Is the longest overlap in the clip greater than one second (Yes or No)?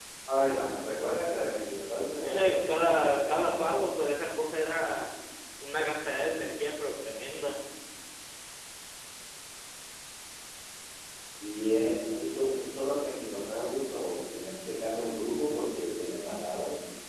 Yes